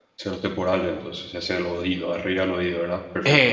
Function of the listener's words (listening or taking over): taking over